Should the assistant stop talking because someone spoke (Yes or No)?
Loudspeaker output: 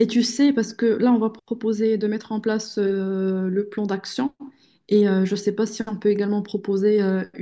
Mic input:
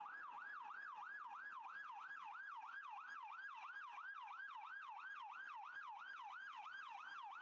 No